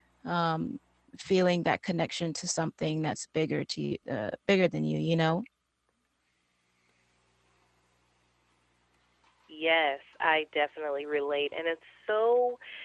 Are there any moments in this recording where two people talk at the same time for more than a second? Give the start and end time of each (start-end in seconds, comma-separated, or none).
none